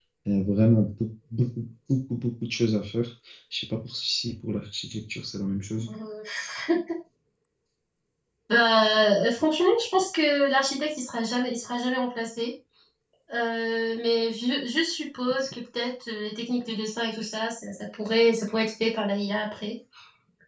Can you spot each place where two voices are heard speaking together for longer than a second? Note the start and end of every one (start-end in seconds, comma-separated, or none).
none